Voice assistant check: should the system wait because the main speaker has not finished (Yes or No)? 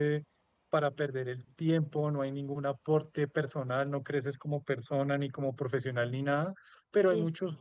Yes